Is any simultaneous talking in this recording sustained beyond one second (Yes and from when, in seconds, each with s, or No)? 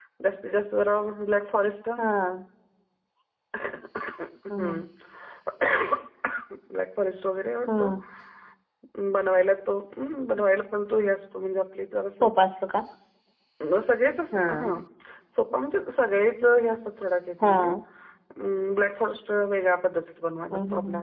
No